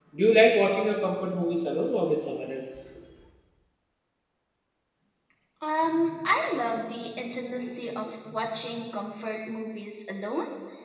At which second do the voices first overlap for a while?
none

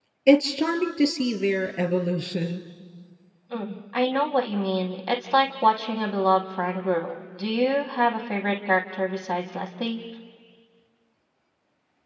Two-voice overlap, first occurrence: none

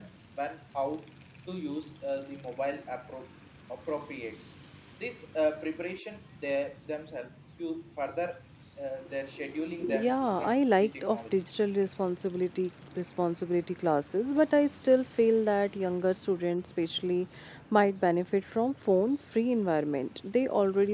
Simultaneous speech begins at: 9.8 s

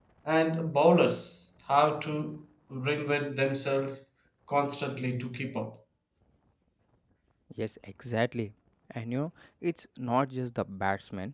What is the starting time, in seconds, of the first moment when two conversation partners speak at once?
none

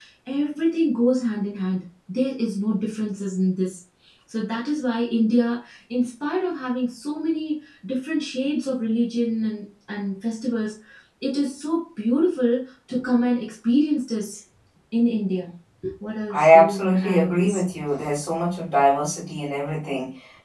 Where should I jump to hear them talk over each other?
16.3 s

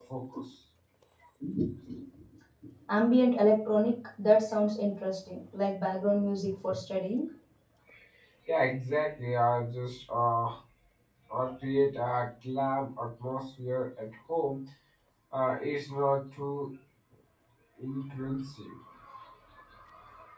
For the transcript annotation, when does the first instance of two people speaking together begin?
none

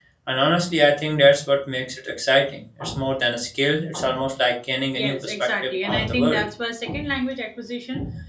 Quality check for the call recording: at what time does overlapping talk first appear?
5.0 s

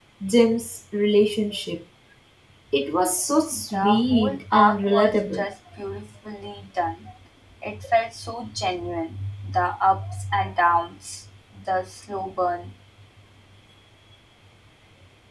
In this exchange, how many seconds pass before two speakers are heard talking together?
3.5 s

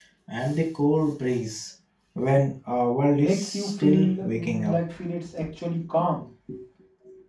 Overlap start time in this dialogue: 3.1 s

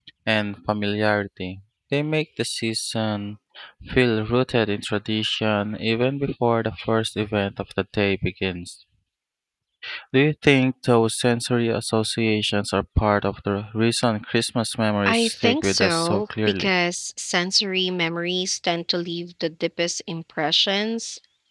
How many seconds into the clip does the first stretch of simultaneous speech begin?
15.1 s

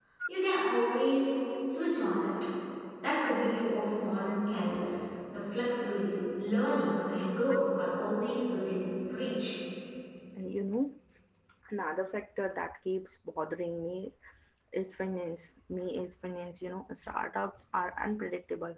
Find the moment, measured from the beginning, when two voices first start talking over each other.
none

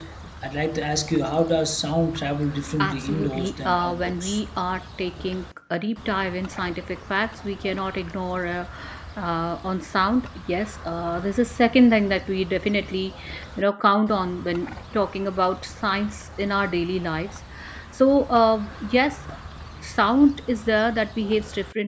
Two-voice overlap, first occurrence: 2.8 s

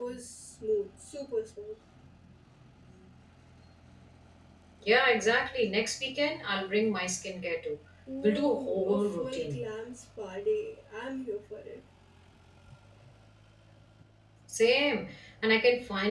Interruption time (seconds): 8.2 s

